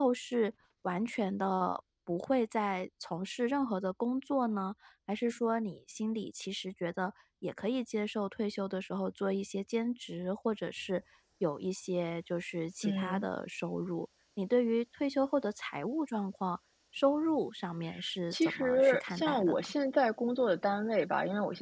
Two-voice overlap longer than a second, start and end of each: 18.3-19.6

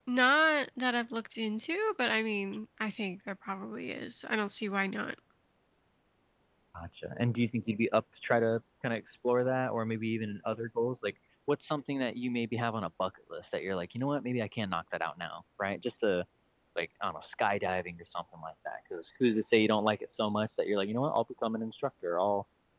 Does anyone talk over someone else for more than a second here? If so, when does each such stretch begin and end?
none

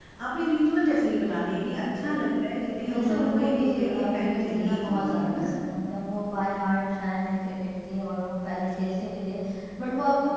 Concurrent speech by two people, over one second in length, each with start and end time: 2.6-5.5

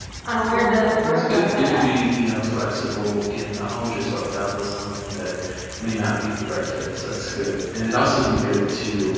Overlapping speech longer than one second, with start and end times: 0.5-1.8

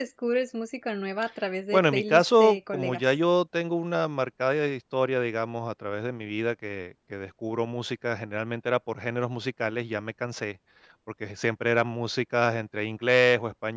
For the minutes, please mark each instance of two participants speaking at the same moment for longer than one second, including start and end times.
1.7-3.0

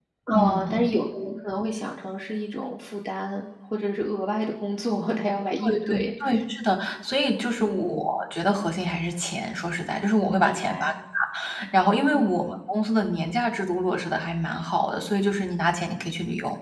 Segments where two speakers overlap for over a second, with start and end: none

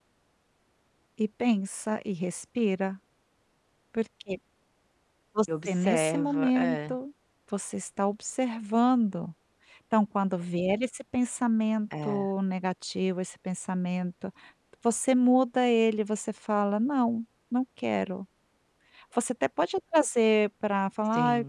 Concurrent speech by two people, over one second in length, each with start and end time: 5.7-7.0

